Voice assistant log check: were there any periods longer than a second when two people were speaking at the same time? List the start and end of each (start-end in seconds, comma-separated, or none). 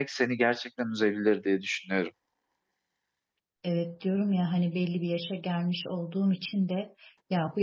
none